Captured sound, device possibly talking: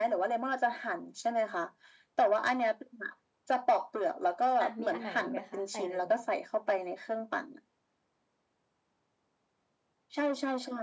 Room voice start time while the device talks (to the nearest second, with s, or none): 5 s